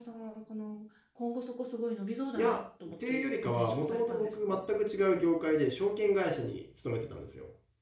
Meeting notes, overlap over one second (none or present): present